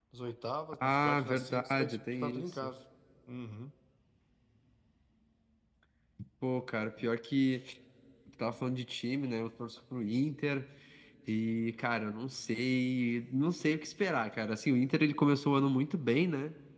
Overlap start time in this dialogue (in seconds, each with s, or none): 0.8 s